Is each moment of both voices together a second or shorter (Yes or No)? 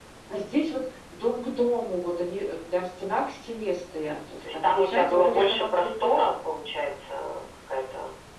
No